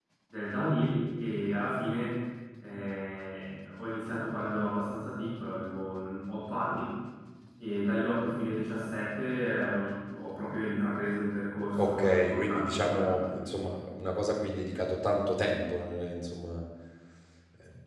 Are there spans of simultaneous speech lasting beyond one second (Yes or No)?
Yes